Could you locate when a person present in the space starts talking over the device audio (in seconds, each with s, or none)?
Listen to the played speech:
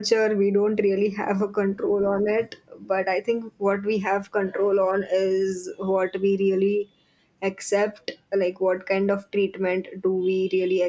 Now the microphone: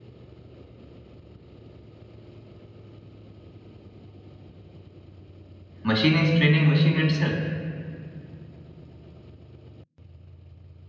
5.8 s